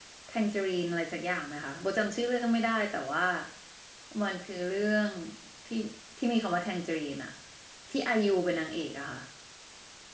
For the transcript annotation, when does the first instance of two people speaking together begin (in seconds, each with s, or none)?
none